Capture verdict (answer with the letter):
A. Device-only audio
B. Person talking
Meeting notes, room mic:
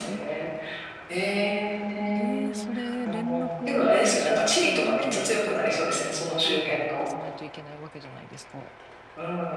B